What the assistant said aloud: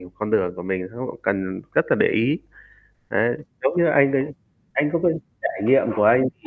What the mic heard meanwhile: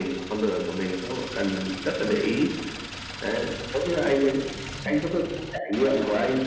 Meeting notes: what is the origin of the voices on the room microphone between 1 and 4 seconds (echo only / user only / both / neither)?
echo only